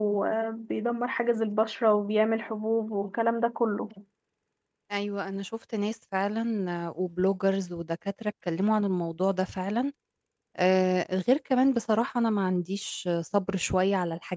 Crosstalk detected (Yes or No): No